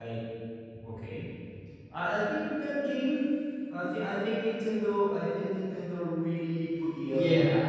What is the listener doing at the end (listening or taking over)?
taking over